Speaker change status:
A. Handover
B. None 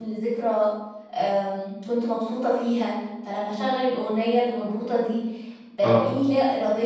B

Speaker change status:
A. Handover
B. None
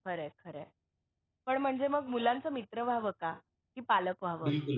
A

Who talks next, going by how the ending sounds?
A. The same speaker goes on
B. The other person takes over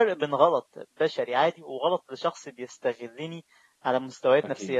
A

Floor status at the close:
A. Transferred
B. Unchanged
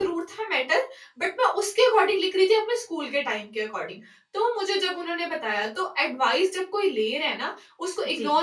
B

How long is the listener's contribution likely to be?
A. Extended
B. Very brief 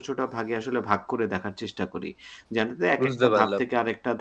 B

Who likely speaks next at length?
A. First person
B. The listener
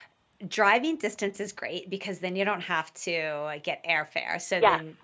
A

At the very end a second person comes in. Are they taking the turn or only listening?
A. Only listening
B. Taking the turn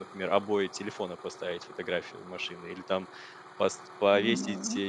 A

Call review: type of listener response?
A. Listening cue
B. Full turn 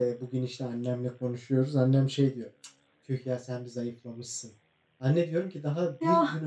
A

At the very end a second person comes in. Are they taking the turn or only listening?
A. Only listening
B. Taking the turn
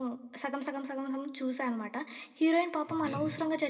A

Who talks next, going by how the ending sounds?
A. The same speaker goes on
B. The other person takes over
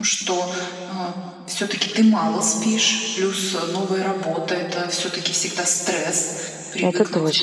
A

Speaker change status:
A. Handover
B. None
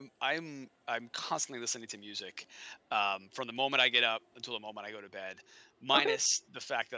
B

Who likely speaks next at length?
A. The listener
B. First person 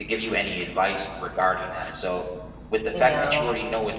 B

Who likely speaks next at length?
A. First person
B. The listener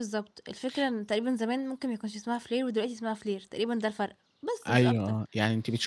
B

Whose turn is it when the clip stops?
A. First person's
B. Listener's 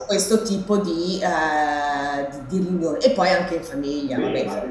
B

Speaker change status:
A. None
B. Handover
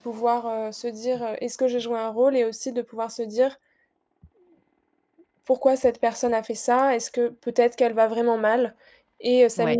A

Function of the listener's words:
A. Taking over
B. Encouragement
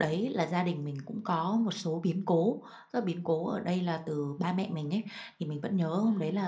B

